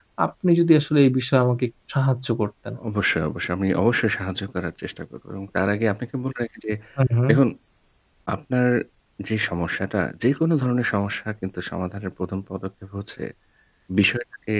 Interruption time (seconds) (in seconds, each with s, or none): none